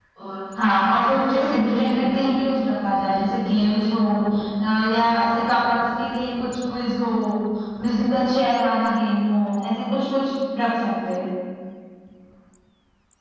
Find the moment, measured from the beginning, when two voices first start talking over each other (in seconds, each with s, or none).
0.6 s